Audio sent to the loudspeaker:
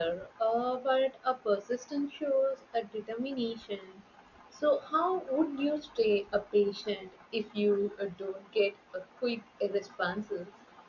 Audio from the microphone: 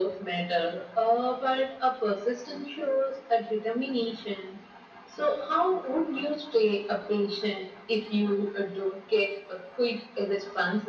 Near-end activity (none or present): none